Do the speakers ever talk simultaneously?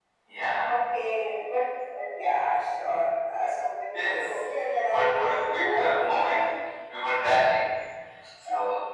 Yes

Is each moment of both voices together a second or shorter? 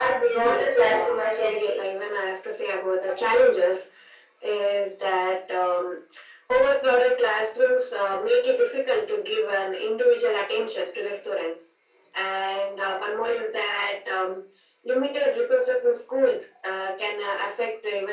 No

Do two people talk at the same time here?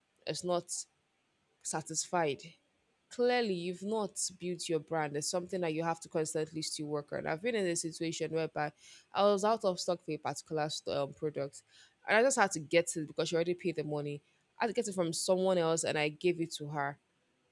No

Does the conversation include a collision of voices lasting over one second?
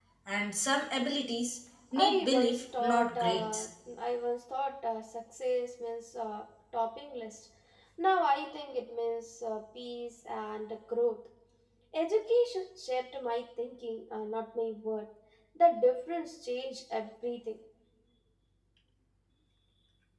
Yes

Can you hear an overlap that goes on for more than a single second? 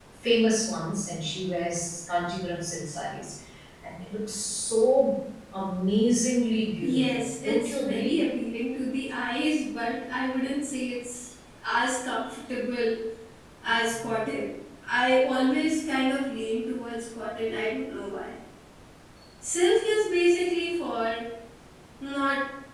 Yes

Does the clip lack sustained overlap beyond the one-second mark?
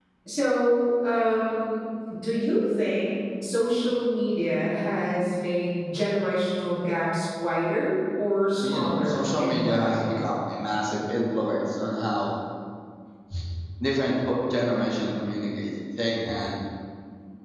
No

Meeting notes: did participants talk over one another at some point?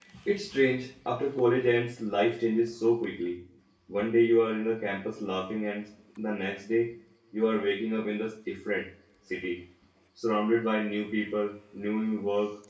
No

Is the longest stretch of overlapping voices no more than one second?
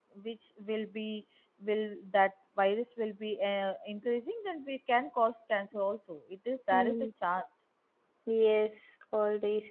Yes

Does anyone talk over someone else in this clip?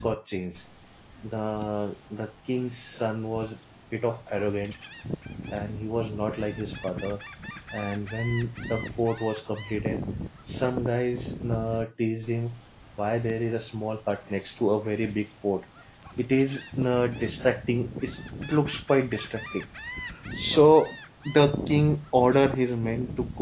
No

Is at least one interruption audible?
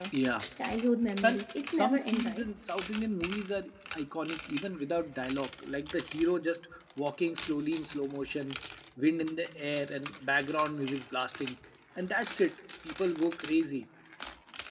Yes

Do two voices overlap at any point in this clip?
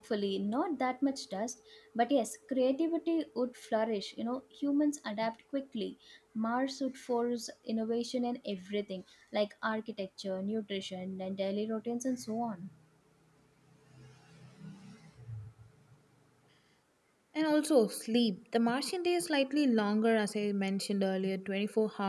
No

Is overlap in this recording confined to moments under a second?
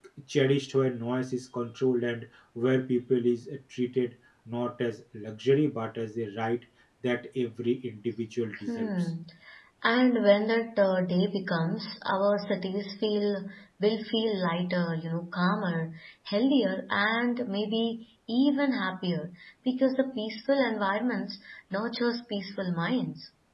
Yes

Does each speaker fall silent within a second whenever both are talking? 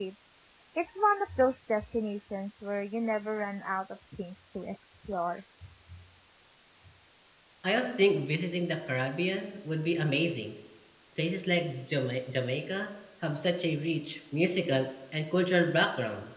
Yes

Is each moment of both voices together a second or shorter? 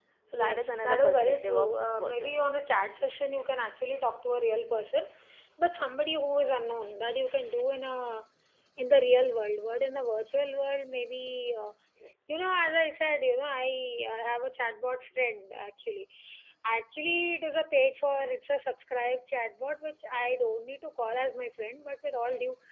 No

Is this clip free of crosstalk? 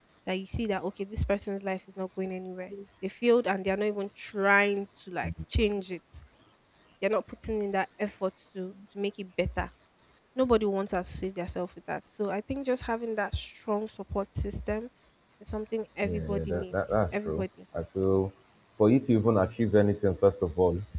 No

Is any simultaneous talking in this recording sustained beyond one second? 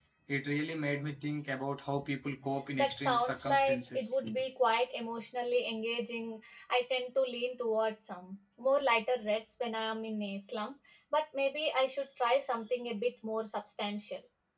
Yes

